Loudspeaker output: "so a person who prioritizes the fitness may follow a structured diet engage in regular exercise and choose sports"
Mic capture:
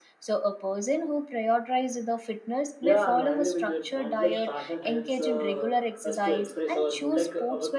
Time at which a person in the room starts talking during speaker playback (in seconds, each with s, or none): 2.8 s